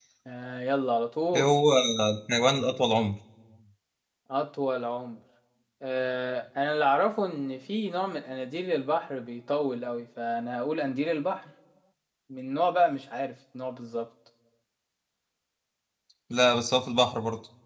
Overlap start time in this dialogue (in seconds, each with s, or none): none